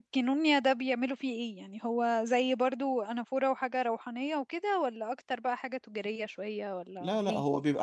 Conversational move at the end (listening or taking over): taking over